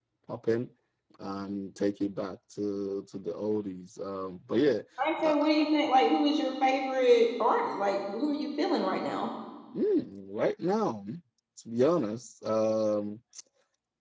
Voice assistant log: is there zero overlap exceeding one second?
Yes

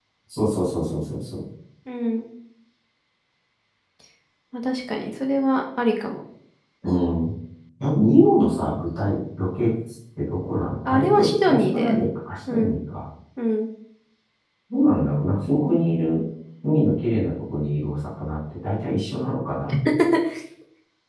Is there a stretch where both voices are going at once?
Yes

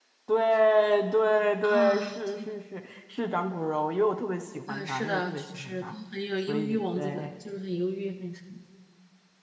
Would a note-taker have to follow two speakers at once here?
Yes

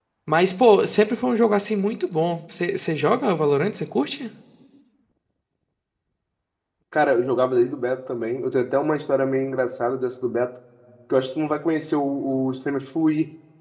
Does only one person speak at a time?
Yes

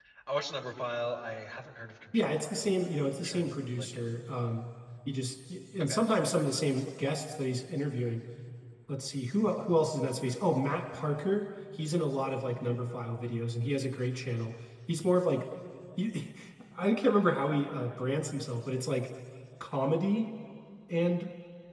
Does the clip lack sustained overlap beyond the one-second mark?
No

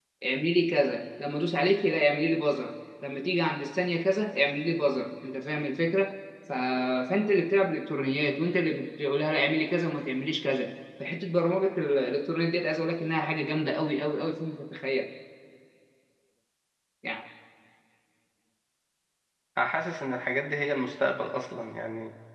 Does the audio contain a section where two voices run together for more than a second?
No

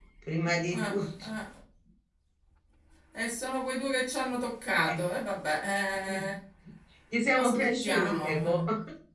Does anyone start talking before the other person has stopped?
Yes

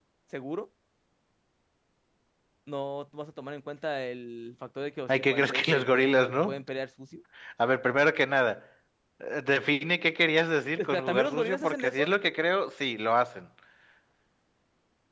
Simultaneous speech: Yes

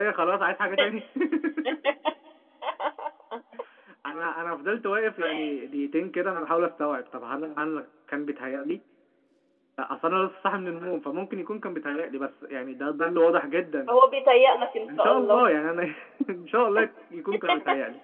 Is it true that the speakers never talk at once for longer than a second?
Yes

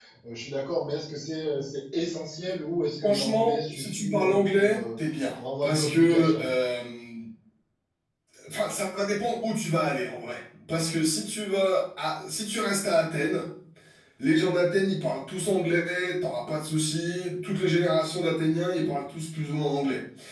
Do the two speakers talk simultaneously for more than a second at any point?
Yes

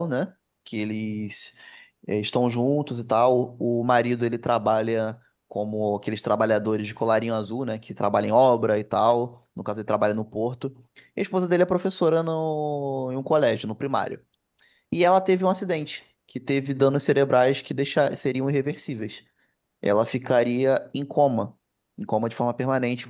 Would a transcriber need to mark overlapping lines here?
No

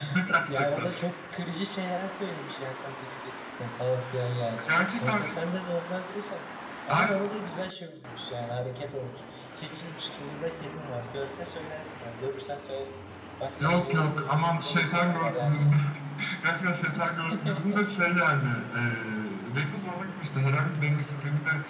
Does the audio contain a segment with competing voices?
Yes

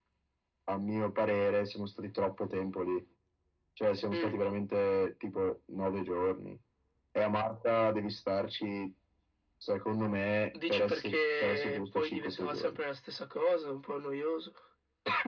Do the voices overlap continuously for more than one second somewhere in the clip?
Yes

